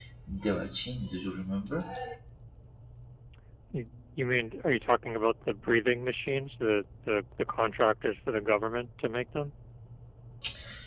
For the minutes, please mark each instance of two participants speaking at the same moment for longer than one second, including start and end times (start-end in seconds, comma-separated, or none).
none